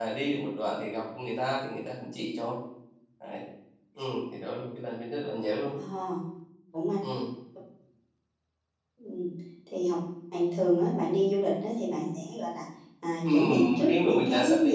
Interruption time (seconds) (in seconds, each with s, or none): 13.2 s